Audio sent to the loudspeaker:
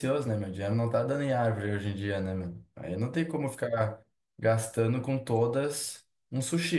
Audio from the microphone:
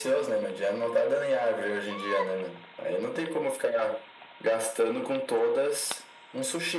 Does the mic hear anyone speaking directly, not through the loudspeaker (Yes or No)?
No